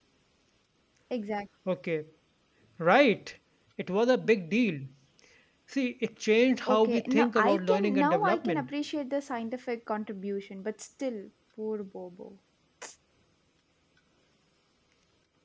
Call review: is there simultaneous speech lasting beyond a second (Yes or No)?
Yes